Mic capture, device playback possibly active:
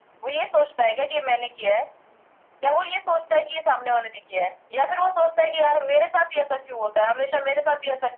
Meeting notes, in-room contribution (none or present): none